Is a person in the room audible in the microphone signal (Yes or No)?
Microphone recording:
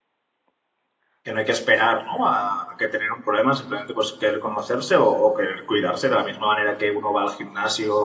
Yes